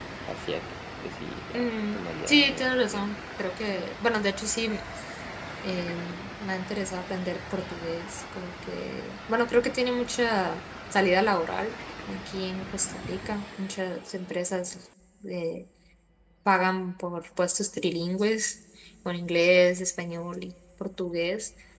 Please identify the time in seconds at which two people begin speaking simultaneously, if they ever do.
1.5 s

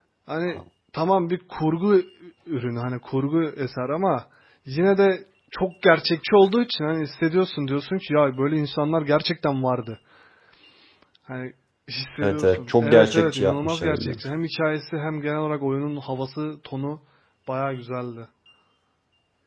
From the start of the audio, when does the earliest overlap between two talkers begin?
12.2 s

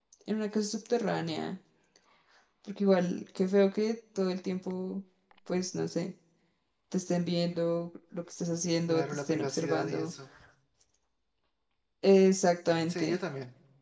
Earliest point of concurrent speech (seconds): 8.9 s

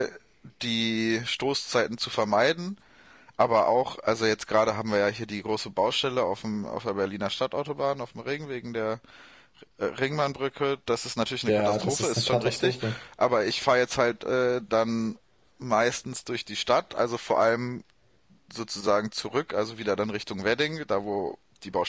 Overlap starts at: 11.5 s

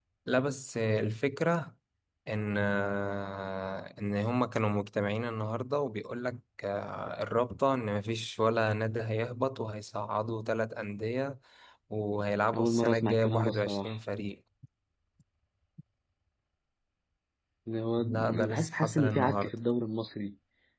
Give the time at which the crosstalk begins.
12.5 s

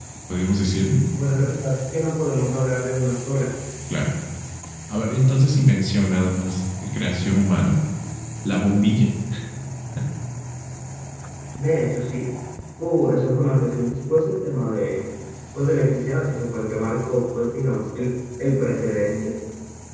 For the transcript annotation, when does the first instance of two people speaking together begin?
none

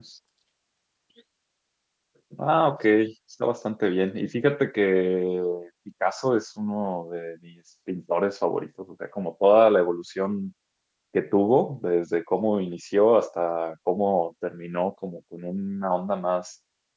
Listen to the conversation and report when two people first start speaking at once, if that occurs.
none

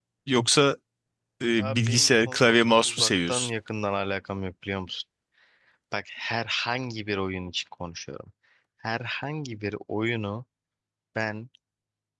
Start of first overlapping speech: 1.6 s

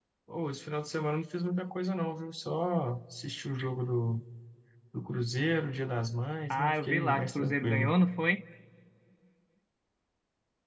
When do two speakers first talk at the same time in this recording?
6.5 s

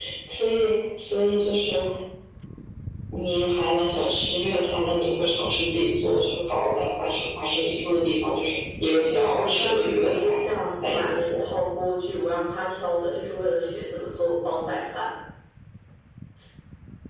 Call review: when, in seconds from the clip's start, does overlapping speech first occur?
9.1 s

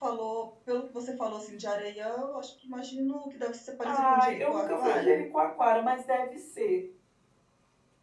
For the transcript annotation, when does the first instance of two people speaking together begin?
3.8 s

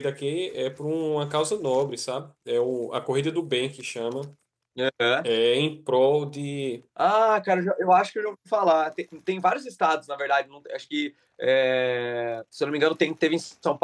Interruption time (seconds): none

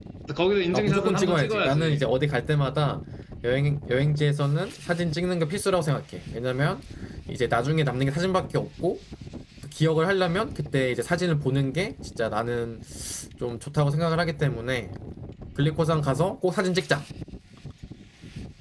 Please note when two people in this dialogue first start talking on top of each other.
0.7 s

